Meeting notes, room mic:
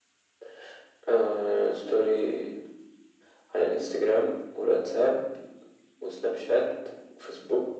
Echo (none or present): present